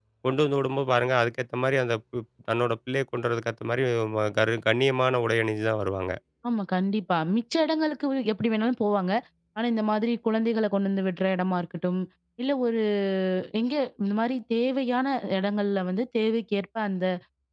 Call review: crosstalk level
none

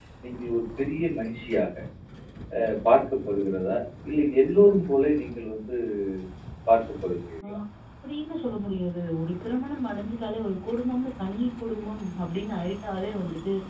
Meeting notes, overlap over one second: none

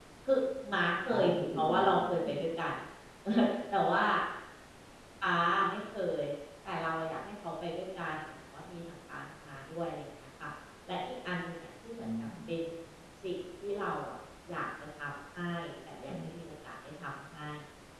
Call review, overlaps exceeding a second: present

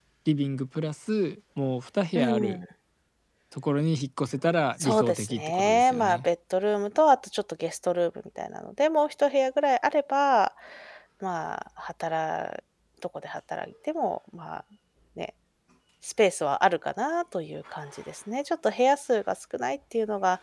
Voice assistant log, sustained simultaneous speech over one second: present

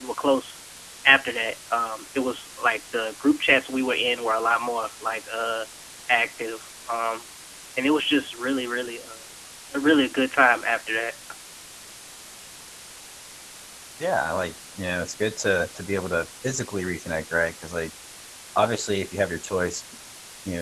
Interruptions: none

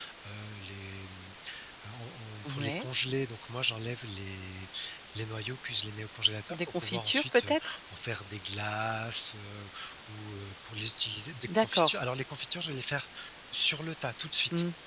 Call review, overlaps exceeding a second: present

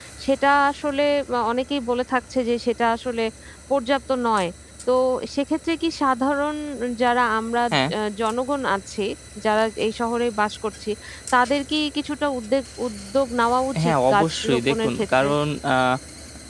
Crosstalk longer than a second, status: present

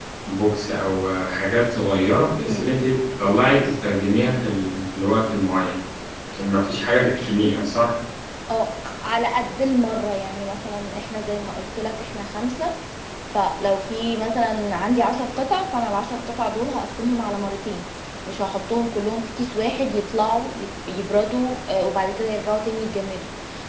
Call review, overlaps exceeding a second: none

